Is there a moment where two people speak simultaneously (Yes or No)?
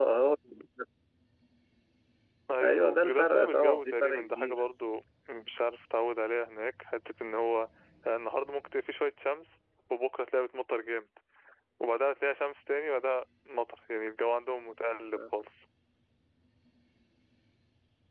Yes